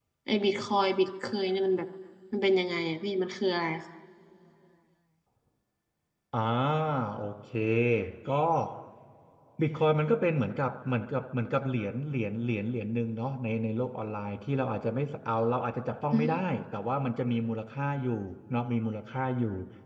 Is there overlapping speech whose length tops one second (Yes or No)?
No